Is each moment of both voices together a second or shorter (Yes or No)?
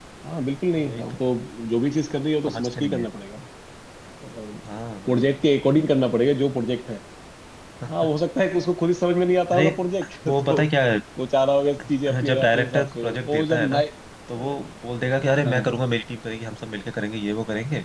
No